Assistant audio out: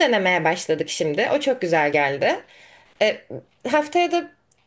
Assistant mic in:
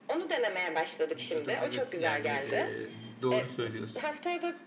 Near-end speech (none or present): present